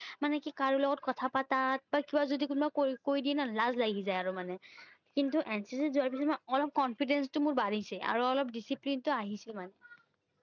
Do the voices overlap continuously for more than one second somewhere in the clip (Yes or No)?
No